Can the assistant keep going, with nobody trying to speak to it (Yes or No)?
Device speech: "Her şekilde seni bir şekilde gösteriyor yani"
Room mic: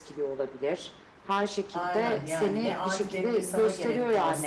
No